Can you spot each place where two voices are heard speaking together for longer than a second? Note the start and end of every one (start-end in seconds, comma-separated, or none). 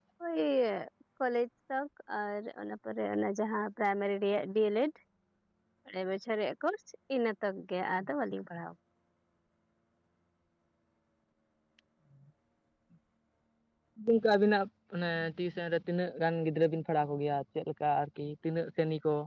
none